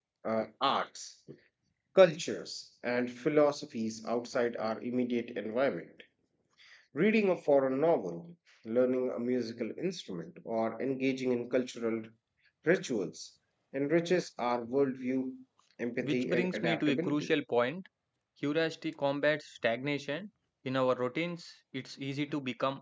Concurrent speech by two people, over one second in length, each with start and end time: 16.0-17.3

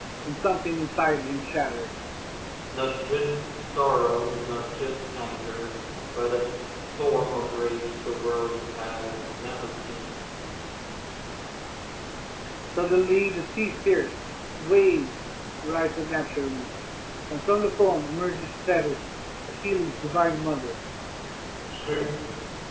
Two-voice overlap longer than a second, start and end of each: none

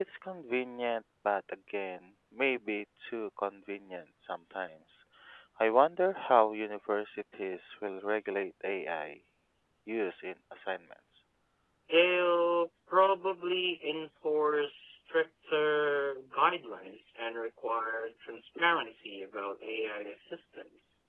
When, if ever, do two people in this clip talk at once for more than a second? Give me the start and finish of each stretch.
none

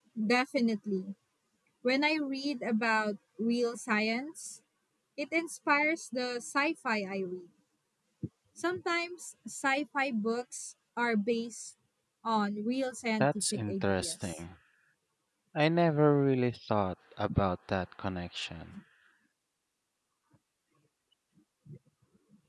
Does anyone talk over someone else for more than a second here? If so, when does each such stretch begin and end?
13.2-14.4

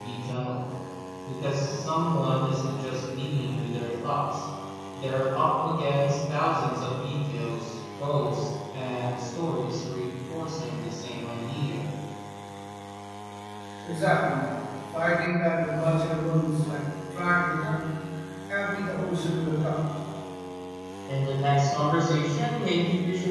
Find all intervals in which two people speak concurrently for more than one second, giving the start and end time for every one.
none

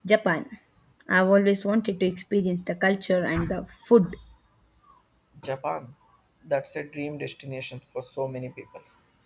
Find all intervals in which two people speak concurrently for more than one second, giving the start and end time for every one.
none

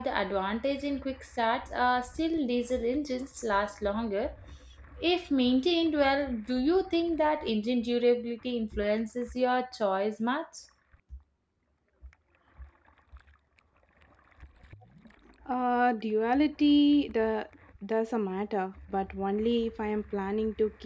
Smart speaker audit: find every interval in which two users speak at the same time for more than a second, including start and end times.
none

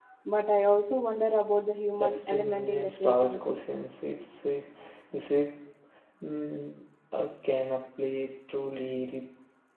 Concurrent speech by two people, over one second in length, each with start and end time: 1.9-3.6

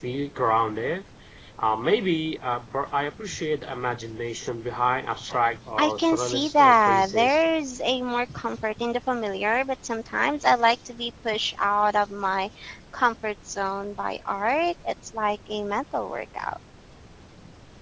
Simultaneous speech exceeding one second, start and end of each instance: 5.8-7.4

